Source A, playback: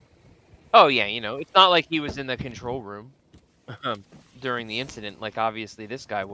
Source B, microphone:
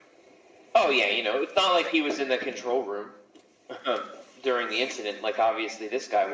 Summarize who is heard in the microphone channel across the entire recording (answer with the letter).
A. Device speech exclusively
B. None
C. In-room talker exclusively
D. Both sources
A